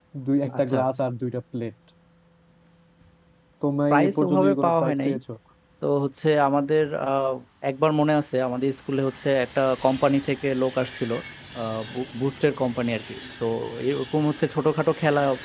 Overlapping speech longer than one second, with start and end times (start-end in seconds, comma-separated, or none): 3.9-5.1